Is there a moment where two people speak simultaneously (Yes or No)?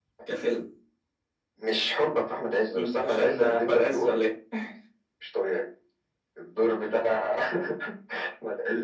Yes